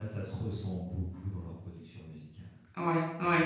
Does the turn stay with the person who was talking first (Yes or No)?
Yes